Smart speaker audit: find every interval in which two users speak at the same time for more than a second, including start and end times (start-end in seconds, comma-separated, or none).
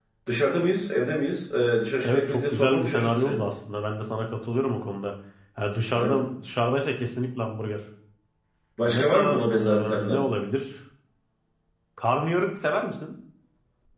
2.0-3.4, 8.8-10.2